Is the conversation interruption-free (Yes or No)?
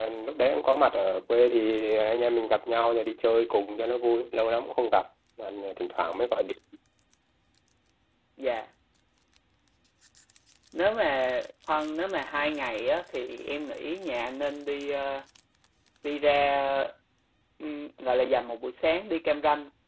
Yes